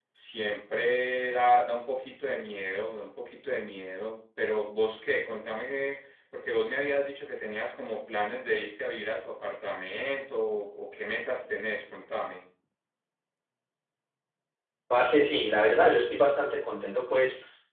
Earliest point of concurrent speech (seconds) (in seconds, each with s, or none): none